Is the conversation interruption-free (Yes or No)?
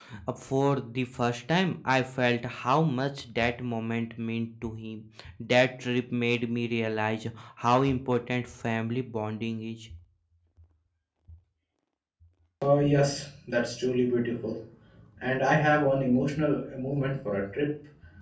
Yes